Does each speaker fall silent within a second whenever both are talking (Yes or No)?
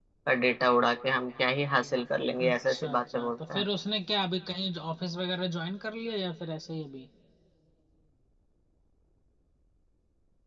No